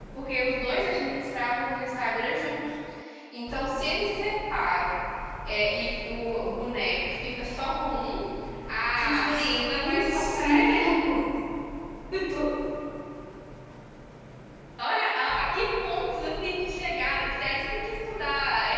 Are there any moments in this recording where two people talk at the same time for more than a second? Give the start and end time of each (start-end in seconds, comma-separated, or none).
8.9-11.1